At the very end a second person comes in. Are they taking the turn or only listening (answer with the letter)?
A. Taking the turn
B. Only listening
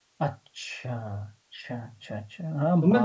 A